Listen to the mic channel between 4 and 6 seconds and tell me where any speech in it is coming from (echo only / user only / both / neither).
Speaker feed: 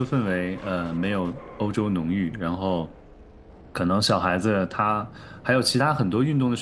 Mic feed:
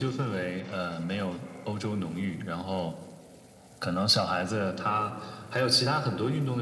echo only